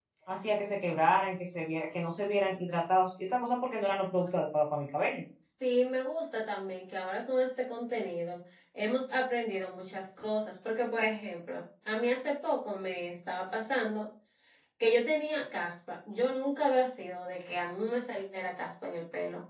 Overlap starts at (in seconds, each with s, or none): none